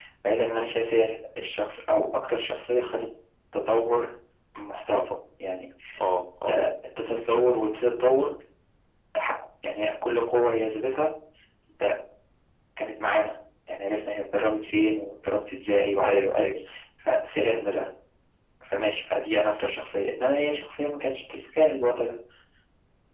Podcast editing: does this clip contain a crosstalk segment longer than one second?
No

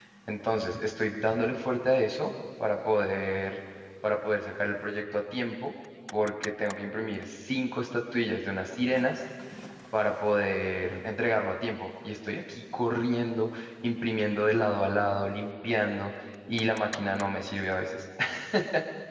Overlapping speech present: No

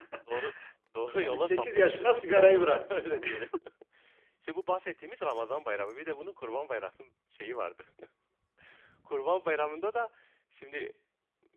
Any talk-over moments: Yes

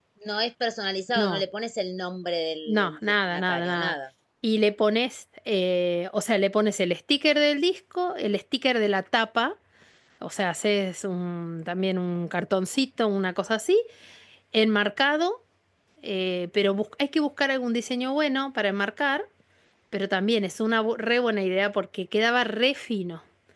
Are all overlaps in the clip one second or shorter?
No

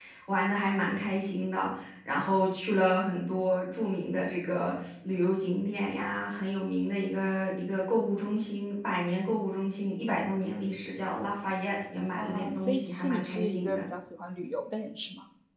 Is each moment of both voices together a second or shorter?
No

